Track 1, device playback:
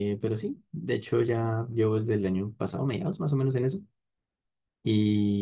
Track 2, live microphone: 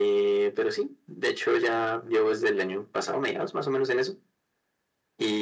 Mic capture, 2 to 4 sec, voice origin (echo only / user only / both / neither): echo only